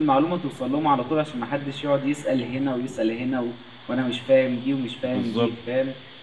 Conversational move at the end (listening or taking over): listening